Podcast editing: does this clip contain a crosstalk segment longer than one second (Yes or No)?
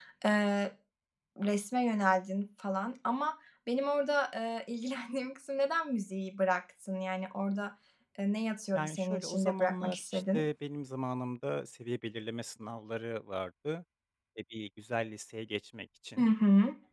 Yes